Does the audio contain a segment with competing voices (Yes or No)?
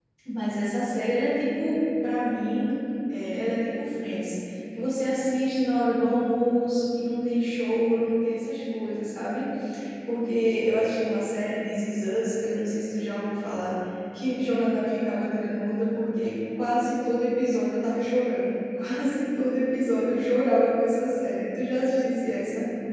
No